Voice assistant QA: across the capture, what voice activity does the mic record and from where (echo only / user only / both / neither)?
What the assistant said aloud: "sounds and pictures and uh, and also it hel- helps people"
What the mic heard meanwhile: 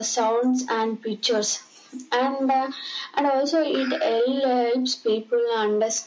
echo only